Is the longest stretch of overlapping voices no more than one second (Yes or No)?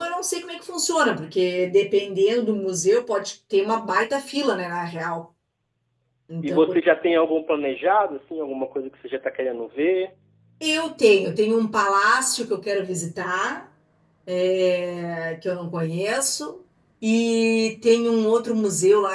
Yes